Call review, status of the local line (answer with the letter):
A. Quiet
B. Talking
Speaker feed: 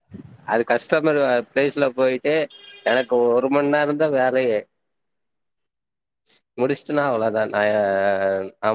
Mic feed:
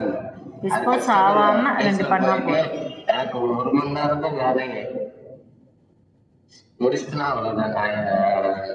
B